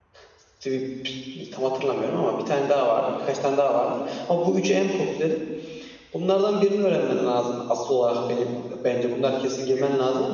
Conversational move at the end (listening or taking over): listening